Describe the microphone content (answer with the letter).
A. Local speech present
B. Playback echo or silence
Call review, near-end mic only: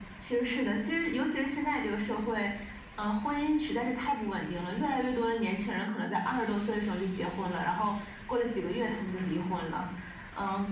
B